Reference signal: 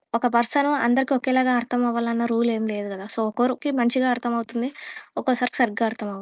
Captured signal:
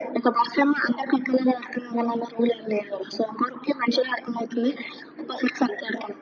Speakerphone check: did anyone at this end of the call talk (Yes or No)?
No